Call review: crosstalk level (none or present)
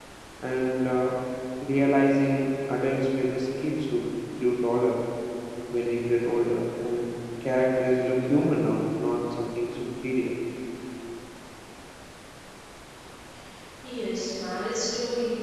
none